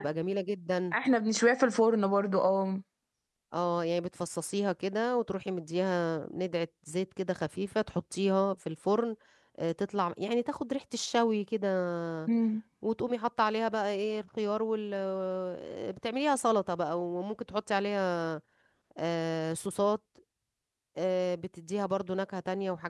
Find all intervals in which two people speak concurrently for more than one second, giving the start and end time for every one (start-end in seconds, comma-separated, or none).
none